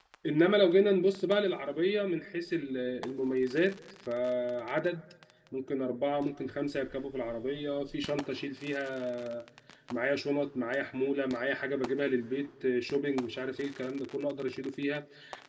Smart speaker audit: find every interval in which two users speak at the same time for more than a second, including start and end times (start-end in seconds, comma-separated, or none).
none